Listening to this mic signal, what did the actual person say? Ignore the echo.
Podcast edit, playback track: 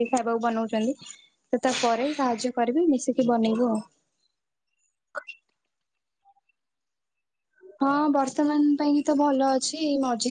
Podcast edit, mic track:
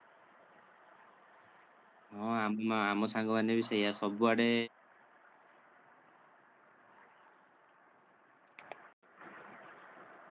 ହଁ ଆମ ଆମ ସାଙ୍ଗମାନେ ବି ସେଇଆ ସବୁଆଡେ

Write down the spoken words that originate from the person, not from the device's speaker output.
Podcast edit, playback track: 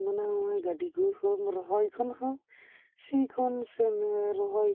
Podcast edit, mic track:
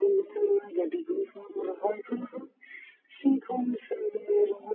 none

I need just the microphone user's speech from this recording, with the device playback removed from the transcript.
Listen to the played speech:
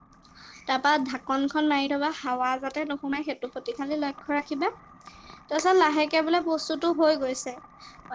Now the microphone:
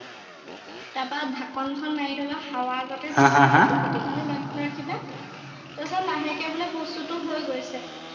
হা হা হা?

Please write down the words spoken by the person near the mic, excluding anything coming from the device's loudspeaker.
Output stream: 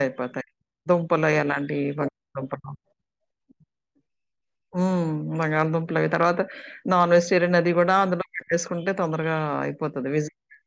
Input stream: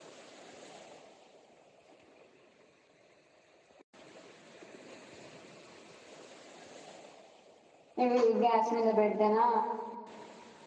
ఇవి గ్యాస్ మీద పెడుతేనా

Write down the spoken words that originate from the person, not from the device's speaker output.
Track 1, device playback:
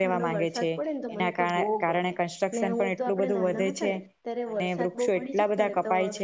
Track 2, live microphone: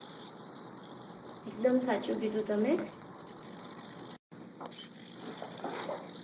એકદમ સાચું કીધું તમે,

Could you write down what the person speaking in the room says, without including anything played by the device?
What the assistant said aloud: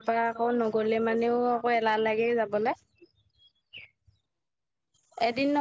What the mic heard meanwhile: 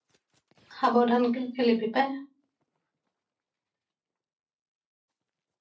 সাৱধানকে খেলিবি পায়।

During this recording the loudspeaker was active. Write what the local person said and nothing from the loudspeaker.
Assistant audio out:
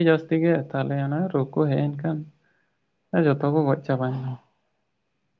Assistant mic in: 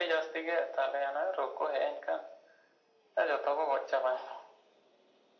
none

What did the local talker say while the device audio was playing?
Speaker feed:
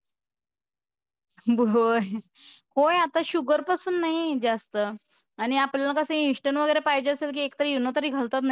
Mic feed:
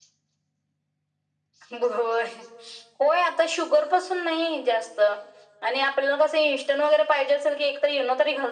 none

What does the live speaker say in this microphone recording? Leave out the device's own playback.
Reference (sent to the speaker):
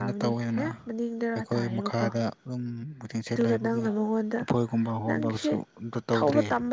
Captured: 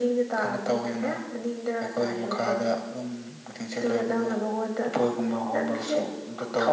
none

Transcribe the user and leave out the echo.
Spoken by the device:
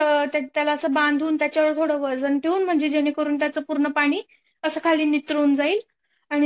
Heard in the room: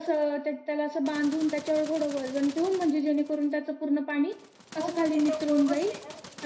हो मग त्याचा उपयोगच नाही ना म.

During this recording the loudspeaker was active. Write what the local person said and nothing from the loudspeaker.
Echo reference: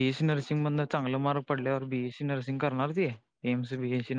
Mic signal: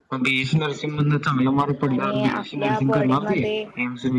आणि आपल्या बॉडी मध्ये

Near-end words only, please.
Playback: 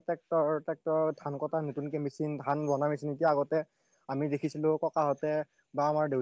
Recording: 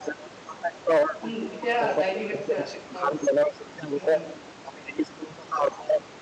উম এতিয়া হত্যা আছিল এটা সময়ত উম উম

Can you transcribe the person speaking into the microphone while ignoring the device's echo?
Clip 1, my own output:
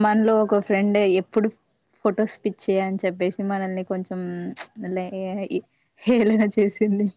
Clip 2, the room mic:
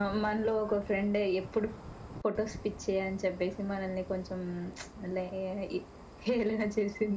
none

